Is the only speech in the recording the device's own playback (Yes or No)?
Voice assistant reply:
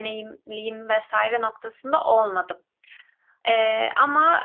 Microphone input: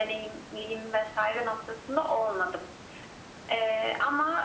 Yes